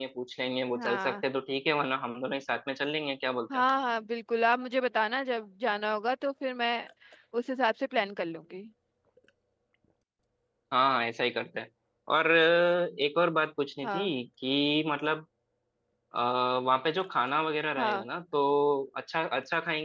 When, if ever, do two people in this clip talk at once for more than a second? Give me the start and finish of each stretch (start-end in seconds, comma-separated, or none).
none